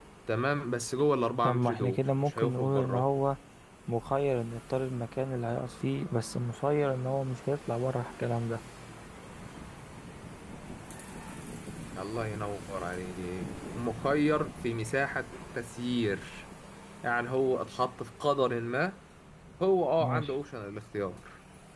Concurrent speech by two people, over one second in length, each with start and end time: 1.4-3.1

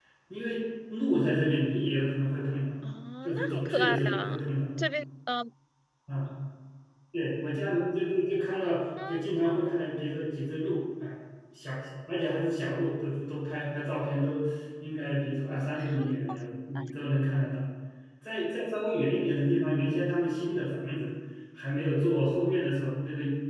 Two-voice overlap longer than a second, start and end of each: 3.2-4.5

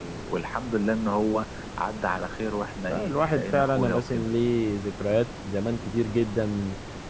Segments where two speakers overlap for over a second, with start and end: 2.9-4.3

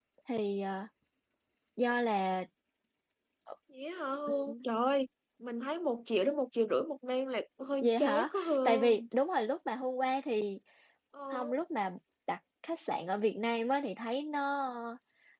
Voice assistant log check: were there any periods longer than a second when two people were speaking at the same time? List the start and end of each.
7.8-9.0

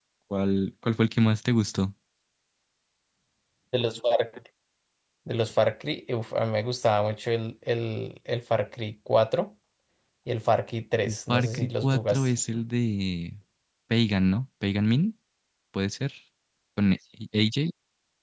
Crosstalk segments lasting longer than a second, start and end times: 11.0-12.3

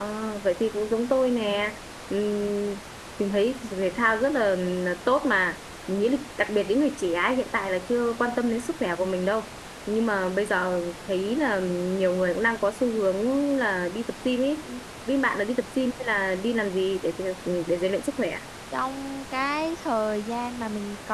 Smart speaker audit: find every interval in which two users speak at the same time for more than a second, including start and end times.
none

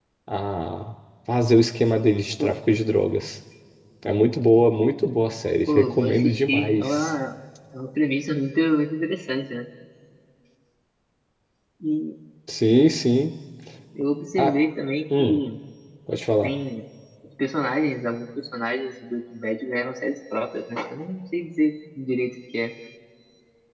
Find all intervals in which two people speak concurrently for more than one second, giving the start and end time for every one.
5.6-7.1

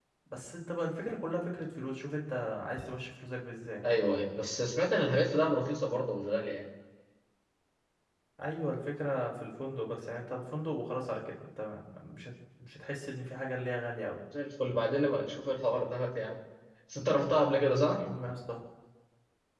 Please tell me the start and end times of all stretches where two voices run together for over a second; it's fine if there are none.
none

